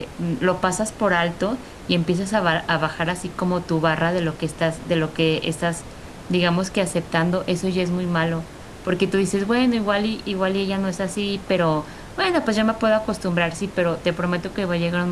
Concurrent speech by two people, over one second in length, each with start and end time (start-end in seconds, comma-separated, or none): none